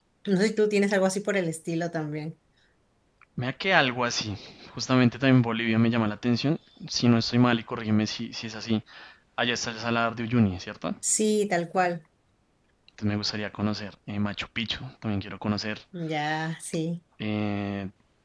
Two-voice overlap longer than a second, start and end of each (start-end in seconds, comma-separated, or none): none